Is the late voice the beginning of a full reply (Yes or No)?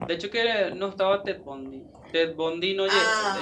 No